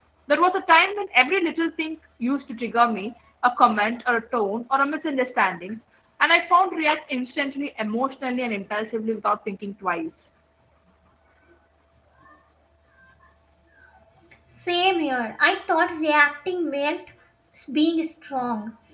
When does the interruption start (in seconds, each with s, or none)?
none